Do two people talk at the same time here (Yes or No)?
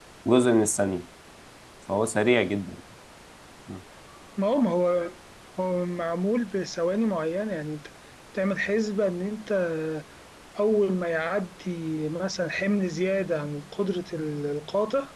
No